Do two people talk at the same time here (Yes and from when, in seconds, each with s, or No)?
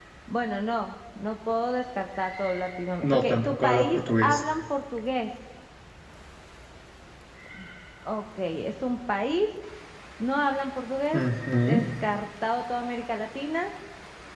Yes, from 3.0 s